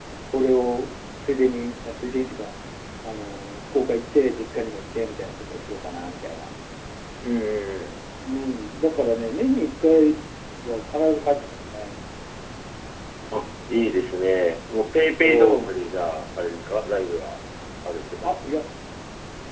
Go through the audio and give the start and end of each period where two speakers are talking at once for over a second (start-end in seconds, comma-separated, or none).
none